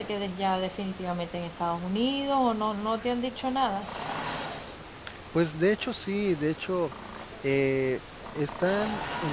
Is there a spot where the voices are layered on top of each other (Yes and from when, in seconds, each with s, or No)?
No